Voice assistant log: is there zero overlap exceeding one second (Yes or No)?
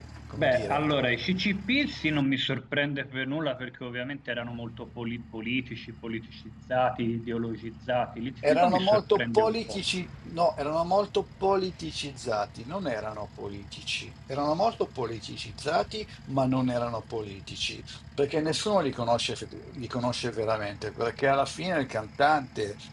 No